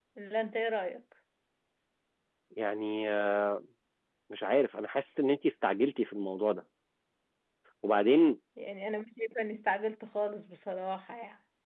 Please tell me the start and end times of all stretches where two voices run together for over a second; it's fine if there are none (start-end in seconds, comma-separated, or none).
none